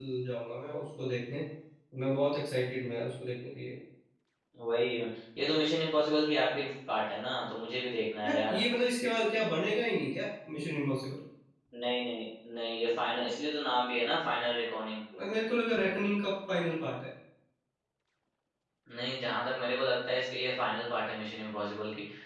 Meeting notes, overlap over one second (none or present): none